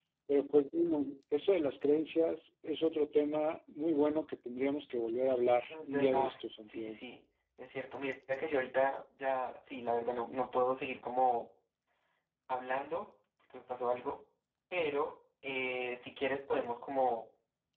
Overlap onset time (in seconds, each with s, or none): 5.7 s